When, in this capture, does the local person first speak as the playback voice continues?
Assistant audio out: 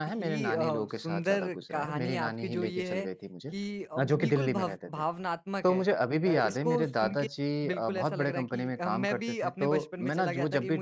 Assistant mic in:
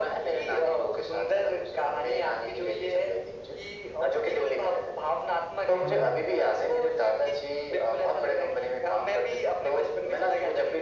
5.8 s

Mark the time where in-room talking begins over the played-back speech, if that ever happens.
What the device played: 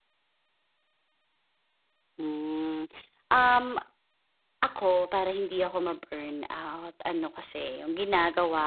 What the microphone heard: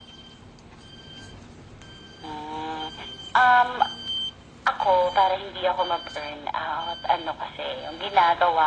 none

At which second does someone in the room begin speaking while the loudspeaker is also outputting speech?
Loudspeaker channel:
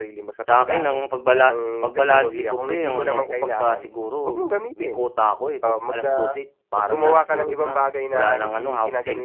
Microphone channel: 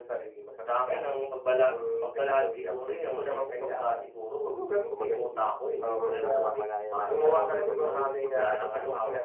4.9 s

